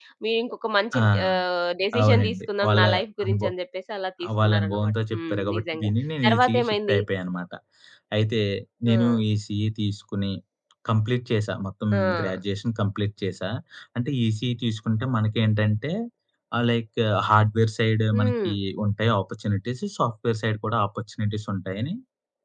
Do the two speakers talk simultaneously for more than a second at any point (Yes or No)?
Yes